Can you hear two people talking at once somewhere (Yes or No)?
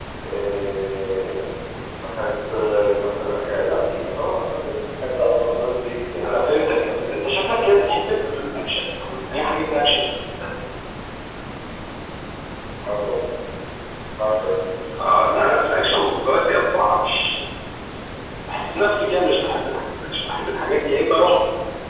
Yes